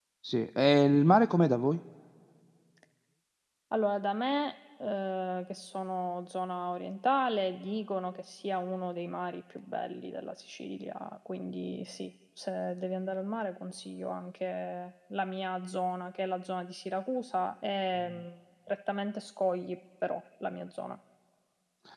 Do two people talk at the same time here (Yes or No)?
No